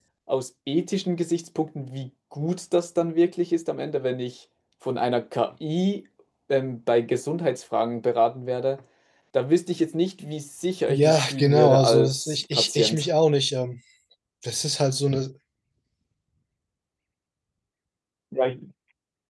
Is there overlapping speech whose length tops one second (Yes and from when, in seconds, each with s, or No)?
Yes, from 10.9 s